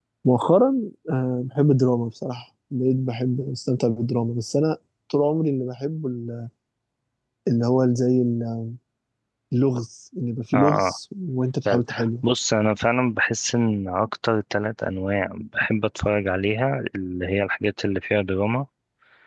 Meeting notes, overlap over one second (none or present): none